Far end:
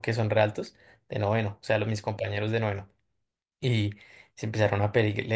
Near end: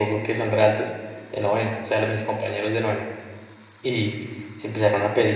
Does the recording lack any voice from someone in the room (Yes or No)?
Yes